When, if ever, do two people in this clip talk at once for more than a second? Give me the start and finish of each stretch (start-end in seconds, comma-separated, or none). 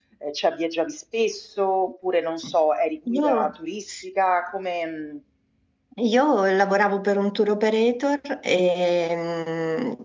none